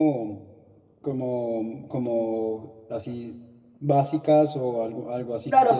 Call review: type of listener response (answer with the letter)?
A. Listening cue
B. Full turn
B